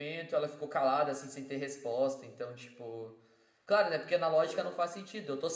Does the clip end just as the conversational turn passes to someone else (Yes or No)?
No